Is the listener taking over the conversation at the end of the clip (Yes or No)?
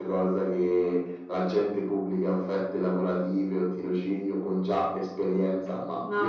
No